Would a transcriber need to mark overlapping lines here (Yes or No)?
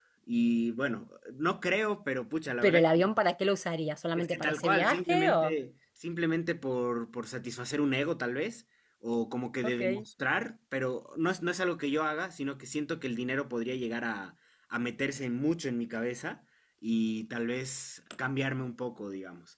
Yes